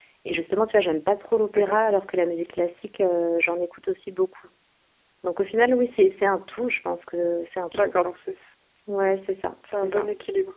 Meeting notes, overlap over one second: none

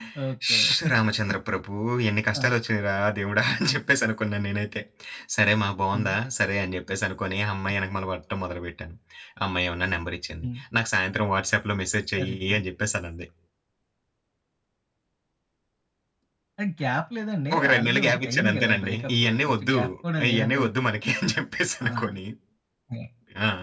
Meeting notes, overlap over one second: present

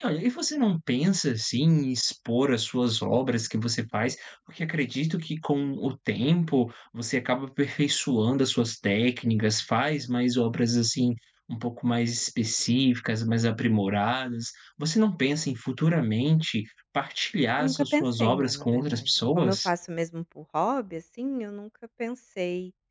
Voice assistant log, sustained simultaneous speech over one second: present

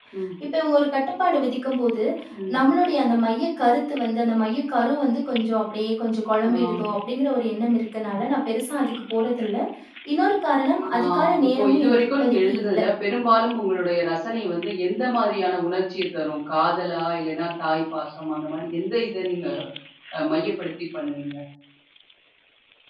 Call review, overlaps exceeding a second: present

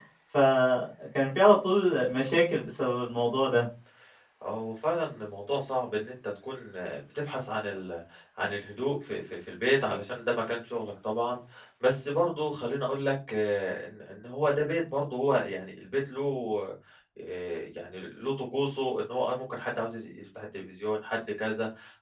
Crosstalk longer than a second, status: none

